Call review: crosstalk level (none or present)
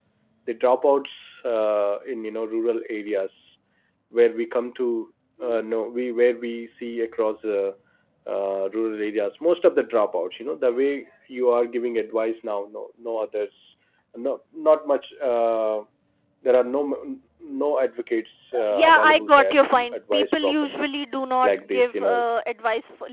present